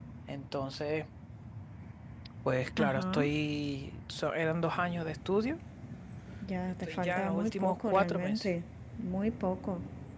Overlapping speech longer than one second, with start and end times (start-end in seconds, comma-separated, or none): 6.8-8.5